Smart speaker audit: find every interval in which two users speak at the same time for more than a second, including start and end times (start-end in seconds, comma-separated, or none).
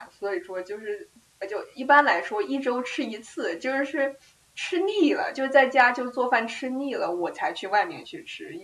none